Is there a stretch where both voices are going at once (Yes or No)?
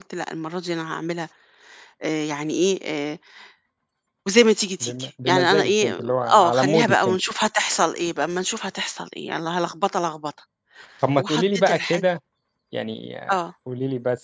Yes